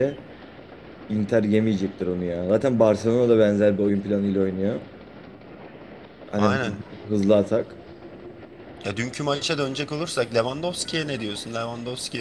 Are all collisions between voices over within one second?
Yes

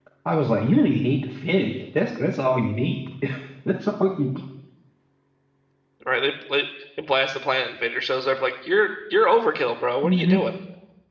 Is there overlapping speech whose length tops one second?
No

